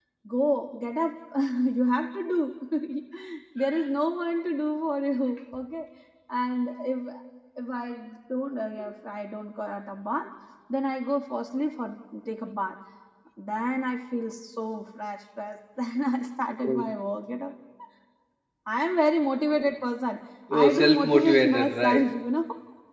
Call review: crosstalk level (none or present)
present